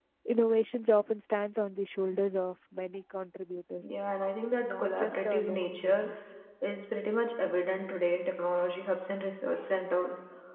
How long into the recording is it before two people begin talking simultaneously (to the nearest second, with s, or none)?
5 s